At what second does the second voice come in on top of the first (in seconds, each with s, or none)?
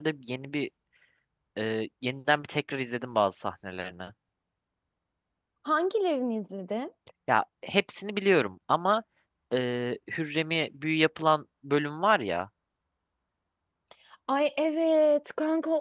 none